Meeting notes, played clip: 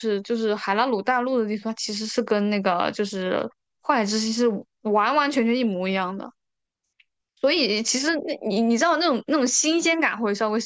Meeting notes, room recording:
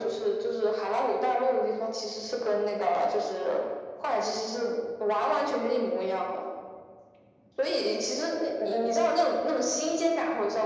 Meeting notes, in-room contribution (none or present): none